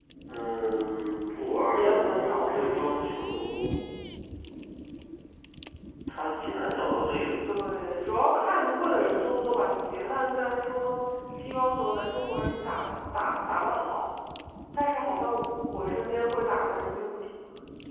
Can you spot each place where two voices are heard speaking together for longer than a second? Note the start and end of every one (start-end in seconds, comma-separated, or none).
1.7-3.1